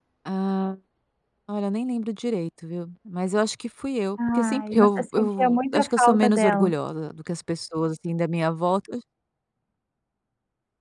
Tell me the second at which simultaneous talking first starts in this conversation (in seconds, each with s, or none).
4.2 s